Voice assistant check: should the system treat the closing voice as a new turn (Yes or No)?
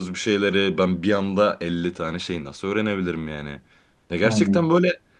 No